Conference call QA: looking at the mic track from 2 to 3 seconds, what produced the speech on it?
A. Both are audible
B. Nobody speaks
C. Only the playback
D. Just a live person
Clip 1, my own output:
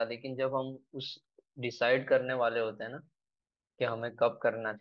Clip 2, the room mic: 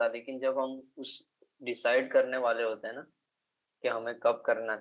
C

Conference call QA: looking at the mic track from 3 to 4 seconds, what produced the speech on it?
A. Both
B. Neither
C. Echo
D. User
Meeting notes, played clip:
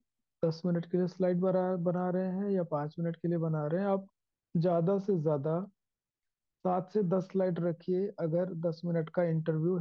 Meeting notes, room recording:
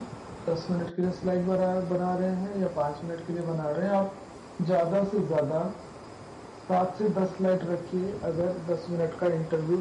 C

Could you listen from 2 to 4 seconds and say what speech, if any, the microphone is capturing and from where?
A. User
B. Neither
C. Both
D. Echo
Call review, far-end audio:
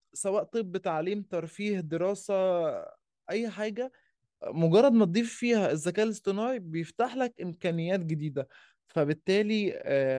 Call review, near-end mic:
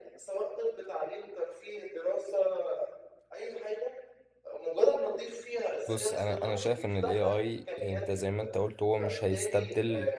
D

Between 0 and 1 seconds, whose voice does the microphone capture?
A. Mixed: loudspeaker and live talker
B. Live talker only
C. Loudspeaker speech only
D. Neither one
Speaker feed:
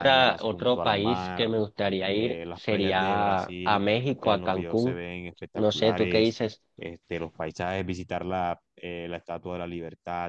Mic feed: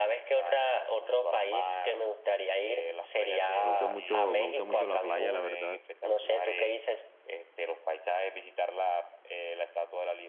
C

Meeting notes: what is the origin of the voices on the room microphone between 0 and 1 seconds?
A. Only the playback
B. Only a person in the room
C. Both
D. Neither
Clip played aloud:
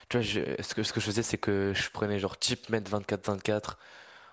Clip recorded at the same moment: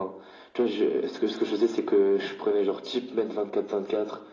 A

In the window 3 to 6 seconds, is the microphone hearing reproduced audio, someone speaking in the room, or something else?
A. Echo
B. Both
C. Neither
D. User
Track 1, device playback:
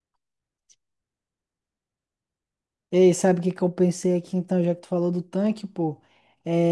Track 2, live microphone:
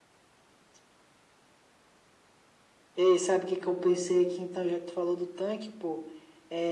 A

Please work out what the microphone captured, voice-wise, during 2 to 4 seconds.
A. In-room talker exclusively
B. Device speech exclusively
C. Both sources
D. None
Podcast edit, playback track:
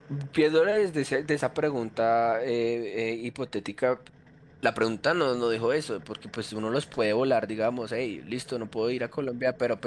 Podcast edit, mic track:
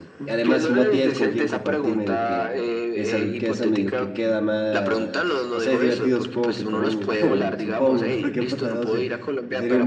C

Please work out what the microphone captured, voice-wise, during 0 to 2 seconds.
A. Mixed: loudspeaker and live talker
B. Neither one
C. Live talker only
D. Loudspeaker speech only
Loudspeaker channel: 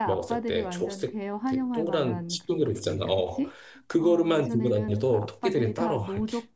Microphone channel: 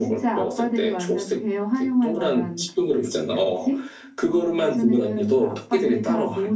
D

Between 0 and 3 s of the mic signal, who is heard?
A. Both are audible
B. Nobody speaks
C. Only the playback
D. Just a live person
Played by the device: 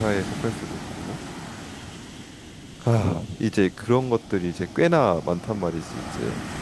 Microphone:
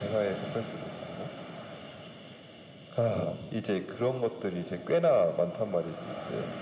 C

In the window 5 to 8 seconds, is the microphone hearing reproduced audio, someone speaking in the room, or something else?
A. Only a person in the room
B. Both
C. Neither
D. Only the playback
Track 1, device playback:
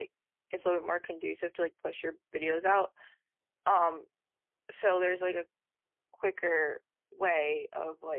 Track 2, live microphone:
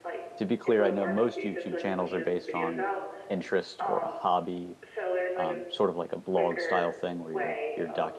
B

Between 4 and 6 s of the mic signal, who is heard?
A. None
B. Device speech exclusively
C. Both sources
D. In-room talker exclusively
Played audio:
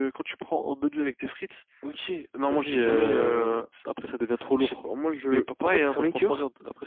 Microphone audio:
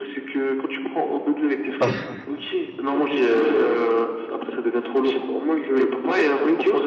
B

